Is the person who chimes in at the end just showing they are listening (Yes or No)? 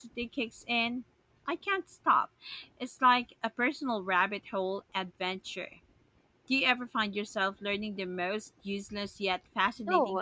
No